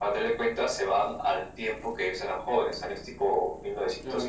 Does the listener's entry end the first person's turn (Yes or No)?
Yes